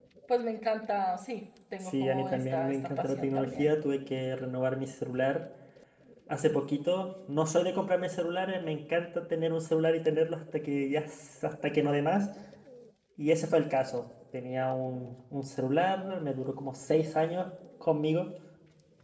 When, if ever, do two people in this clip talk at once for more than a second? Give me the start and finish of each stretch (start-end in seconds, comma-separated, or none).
1.8-3.7